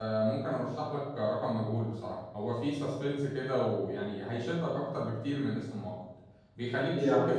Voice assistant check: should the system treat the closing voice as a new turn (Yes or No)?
No